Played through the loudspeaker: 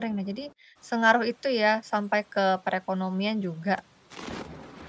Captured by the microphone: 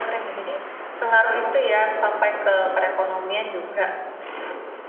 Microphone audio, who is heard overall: echo only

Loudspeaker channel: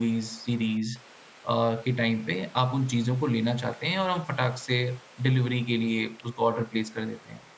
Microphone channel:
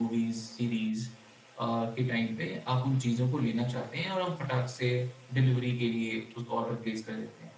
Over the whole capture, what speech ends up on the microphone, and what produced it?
echo only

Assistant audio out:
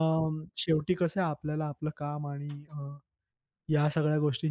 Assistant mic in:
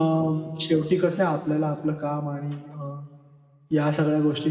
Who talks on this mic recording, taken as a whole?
echo only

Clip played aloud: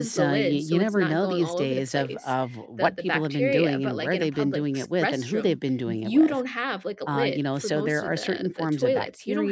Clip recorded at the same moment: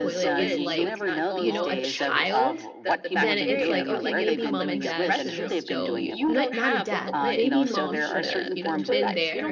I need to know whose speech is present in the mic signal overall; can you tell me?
both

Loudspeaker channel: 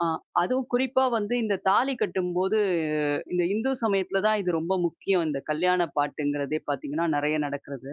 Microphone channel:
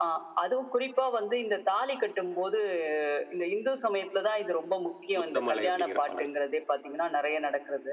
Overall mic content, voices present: both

